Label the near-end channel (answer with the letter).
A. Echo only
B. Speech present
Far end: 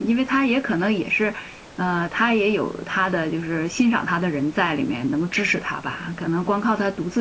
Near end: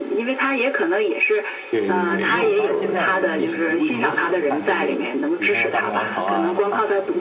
B